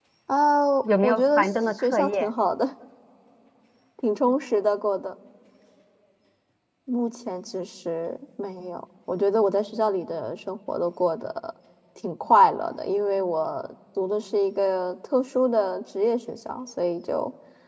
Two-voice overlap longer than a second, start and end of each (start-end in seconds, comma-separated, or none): 1.0-2.3